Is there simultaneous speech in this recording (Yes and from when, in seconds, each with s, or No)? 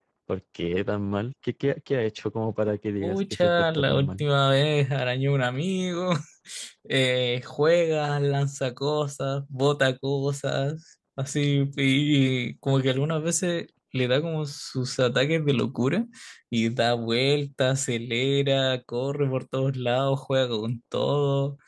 Yes, from 3.0 s